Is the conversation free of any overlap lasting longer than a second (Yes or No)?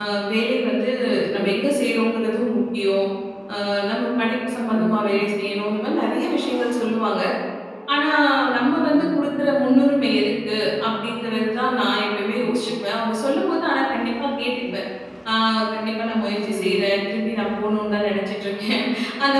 Yes